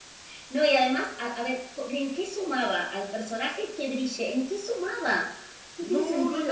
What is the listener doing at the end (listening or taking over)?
taking over